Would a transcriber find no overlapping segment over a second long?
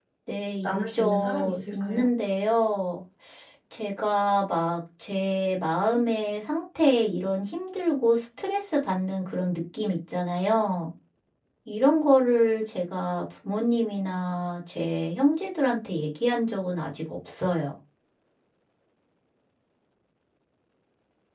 No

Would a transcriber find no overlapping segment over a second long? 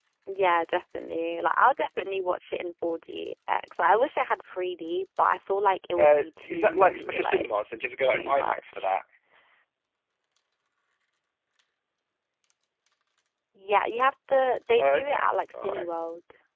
No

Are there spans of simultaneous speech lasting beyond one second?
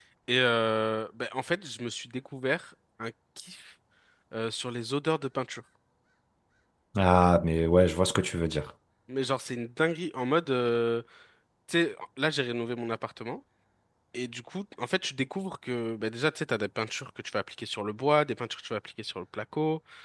No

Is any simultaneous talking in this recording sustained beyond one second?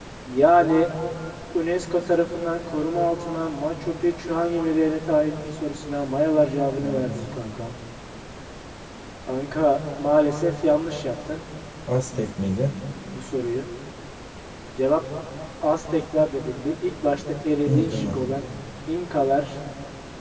No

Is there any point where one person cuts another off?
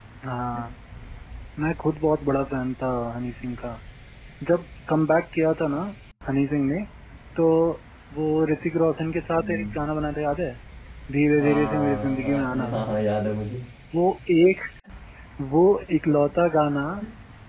Yes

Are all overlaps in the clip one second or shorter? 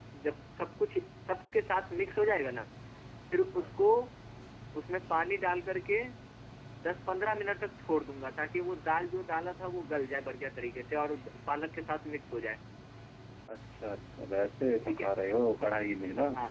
Yes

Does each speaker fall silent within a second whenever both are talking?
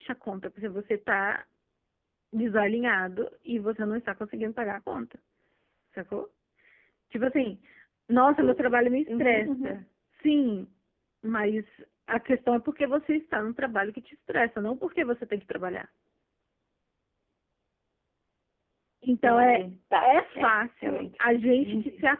No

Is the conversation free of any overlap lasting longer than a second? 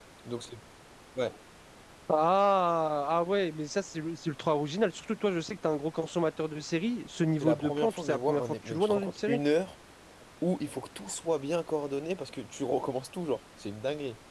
No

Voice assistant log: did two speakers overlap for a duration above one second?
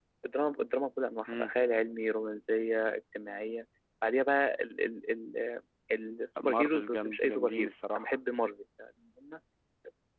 Yes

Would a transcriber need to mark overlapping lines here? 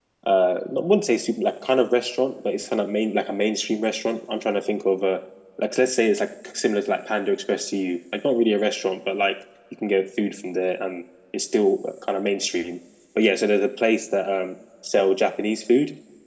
No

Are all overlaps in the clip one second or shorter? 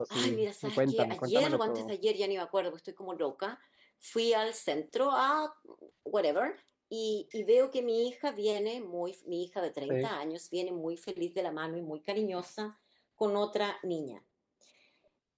No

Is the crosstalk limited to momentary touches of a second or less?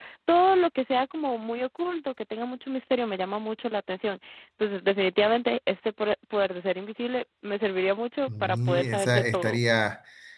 No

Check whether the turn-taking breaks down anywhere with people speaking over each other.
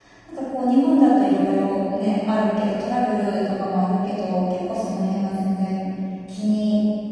No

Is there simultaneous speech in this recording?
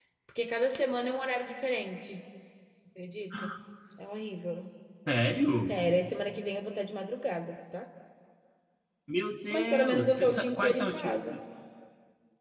Yes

